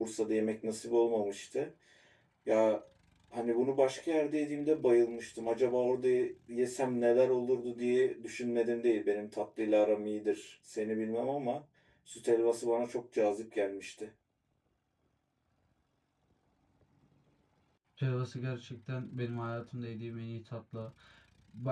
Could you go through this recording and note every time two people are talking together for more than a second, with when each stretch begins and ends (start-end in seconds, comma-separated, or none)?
none